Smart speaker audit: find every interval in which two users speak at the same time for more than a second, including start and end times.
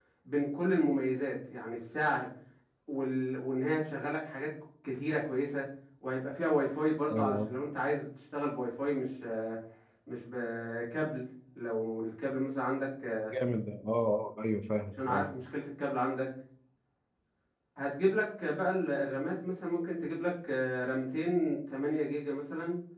none

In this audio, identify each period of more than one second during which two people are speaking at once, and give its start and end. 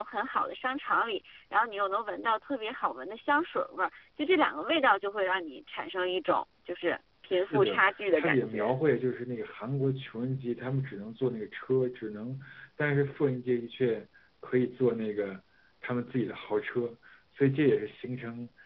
7.3-8.7

